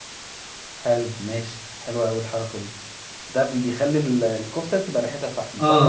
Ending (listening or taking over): taking over